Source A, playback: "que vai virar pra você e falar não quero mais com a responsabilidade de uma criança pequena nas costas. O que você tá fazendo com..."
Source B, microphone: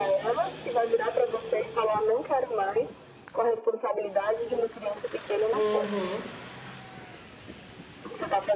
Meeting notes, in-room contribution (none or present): present